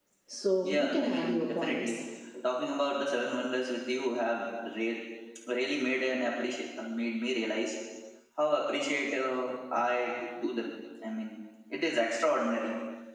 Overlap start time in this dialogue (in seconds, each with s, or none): 0.6 s